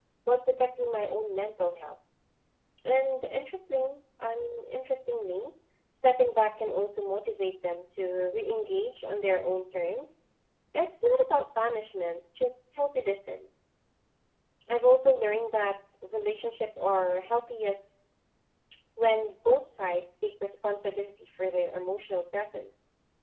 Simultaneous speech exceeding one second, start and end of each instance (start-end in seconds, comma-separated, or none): none